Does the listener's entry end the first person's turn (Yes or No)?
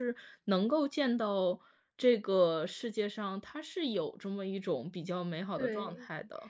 Yes